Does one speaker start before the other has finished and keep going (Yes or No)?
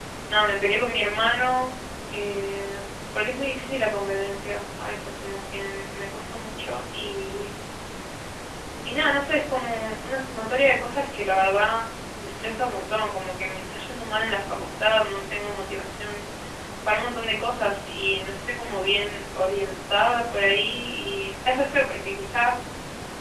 No